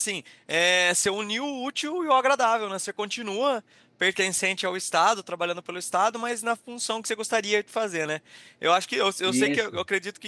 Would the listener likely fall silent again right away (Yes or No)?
Yes